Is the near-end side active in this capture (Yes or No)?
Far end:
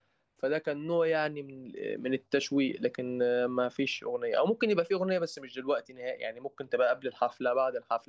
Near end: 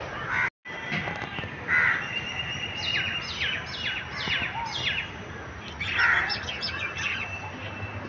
No